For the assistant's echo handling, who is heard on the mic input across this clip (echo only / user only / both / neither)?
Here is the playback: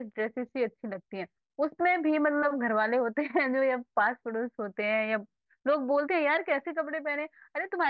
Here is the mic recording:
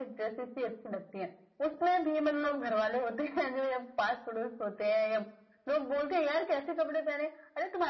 echo only